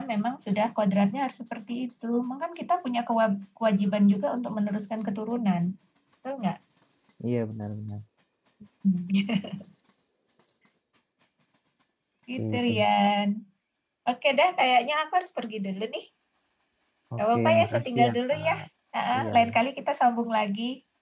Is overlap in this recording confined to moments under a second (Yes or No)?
No